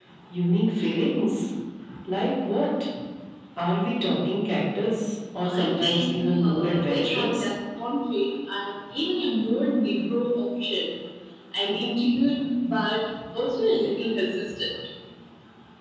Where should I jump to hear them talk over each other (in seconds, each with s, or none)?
5.4 s